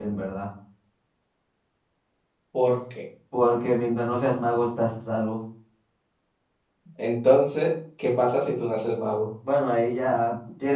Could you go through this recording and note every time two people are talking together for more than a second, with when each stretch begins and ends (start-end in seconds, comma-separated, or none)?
none